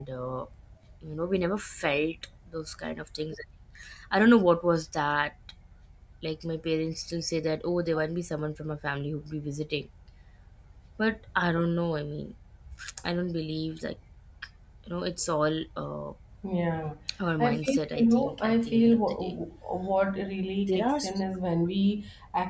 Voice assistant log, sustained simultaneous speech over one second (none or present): present